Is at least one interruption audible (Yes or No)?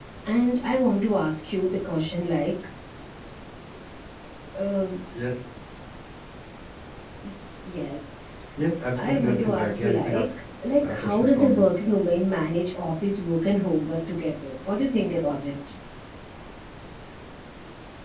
Yes